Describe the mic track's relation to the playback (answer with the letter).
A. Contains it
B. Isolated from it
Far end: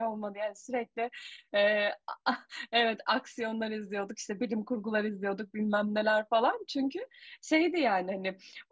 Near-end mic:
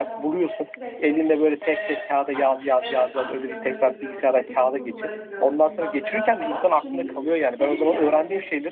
A